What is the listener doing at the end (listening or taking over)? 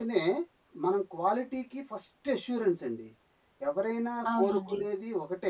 listening